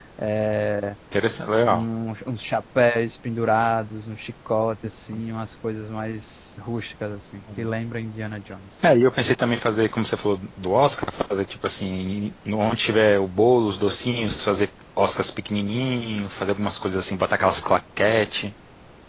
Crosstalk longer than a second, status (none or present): none